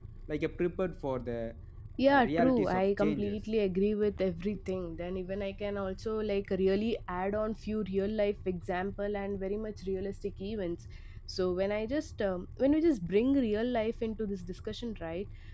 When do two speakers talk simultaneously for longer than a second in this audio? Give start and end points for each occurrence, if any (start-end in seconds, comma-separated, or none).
2.1-3.4